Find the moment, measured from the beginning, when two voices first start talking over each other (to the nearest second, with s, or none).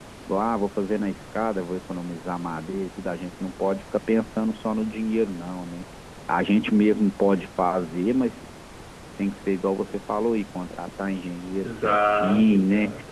12 s